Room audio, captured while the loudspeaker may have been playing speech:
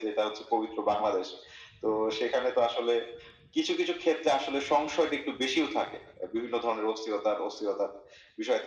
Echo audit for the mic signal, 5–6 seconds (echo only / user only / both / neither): echo only